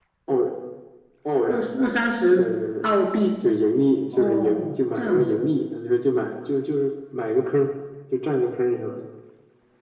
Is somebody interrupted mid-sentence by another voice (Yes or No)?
Yes